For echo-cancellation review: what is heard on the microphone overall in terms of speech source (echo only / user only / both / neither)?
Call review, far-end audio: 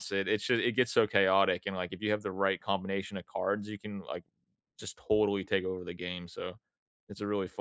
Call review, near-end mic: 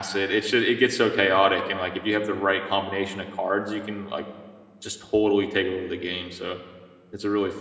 echo only